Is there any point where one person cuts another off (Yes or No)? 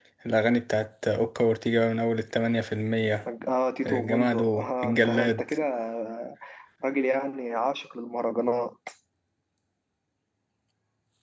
Yes